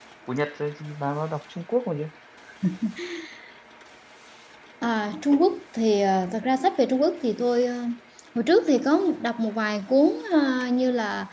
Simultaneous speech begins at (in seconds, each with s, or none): none